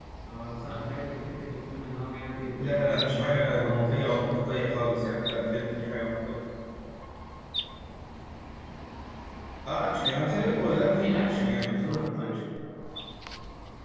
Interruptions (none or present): present